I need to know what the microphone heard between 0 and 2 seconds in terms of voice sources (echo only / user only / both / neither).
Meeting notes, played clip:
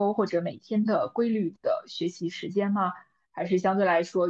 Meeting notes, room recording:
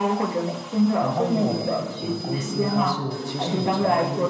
both